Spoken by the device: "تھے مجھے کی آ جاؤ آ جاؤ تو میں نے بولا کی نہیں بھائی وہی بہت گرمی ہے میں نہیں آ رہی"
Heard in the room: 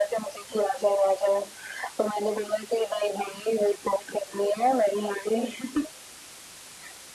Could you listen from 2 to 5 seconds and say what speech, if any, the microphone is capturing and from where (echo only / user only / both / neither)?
echo only